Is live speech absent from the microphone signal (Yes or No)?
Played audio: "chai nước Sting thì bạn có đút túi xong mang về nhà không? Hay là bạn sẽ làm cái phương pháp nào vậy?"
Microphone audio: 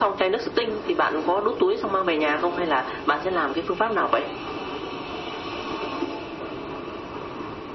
Yes